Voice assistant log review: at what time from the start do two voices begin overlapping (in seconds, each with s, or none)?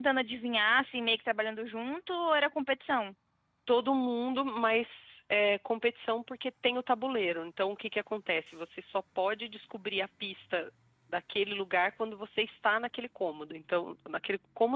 none